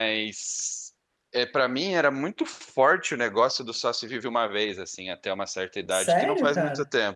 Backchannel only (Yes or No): Yes